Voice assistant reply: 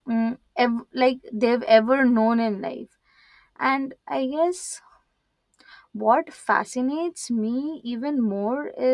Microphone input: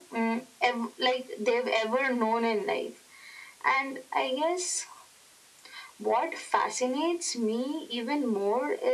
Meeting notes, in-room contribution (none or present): none